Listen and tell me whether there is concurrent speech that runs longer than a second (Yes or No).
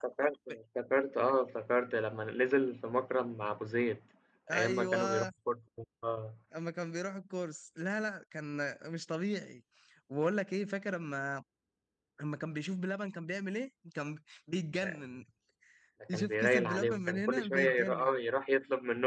Yes